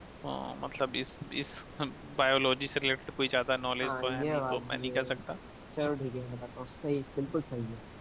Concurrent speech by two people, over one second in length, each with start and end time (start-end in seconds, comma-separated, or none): 3.8-5.0